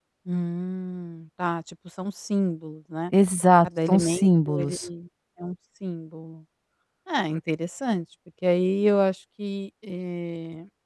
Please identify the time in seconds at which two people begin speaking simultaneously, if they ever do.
3.6 s

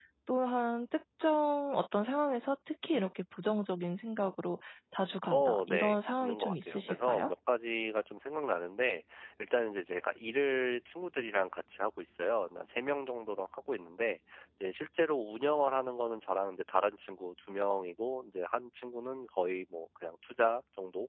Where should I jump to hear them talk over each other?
5.2 s

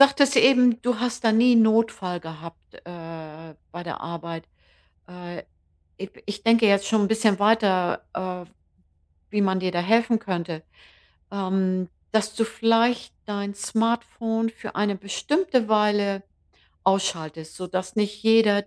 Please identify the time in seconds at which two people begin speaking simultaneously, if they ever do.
none

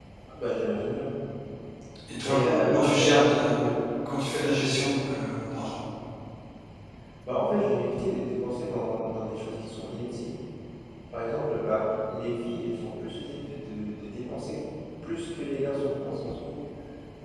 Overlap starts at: 2.2 s

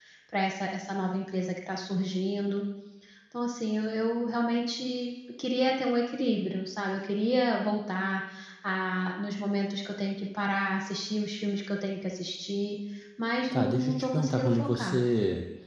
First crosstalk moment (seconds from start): 13.5 s

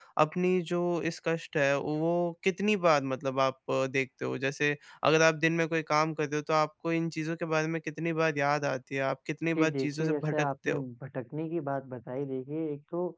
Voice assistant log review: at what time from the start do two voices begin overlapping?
9.6 s

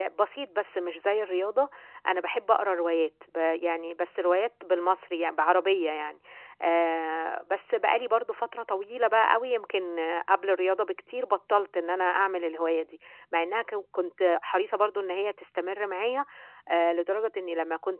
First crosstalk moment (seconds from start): none

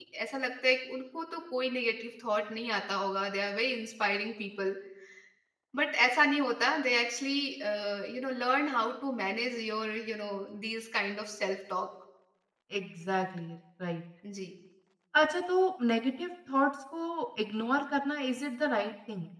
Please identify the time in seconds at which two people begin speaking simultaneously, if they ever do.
none

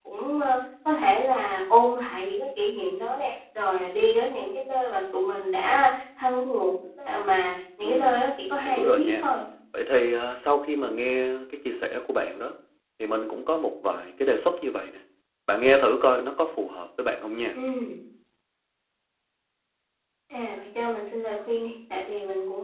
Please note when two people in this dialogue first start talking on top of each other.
7.8 s

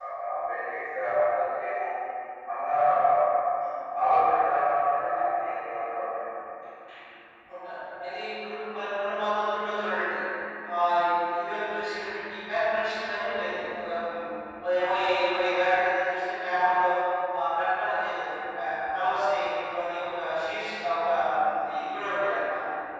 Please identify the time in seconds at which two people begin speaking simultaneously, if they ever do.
none

